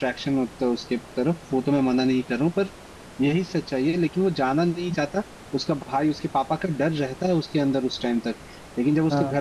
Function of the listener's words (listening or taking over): listening